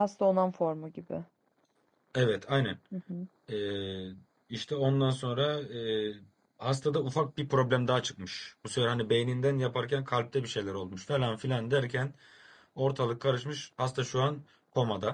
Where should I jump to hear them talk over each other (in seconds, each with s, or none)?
none